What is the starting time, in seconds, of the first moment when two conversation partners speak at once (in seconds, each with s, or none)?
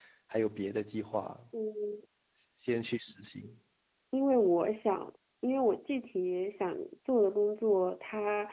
none